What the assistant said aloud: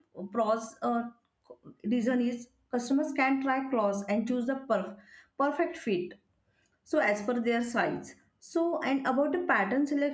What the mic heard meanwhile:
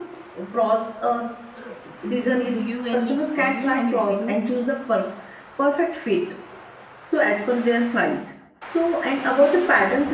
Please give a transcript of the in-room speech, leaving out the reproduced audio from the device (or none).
do you any or do you have any opinion